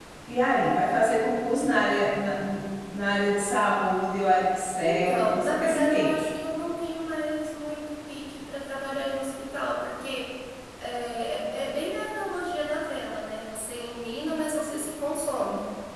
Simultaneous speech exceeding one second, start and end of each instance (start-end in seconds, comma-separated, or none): 4.8-6.1